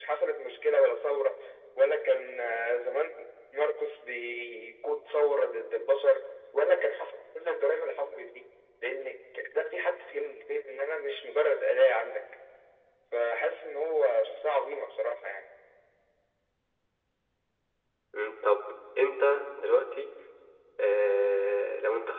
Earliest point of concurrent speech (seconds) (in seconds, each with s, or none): none